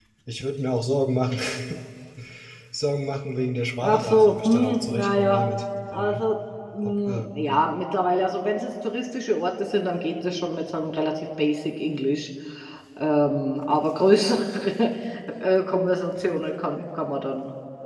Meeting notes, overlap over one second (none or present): present